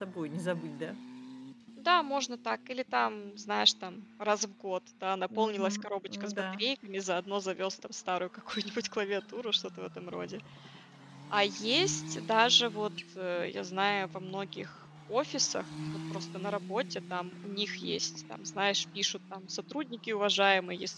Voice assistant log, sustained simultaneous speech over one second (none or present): present